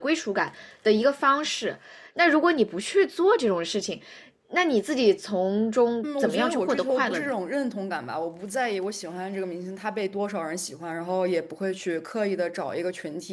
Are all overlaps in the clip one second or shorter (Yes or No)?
No